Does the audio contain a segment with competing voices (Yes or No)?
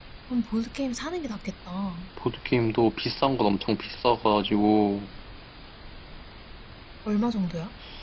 No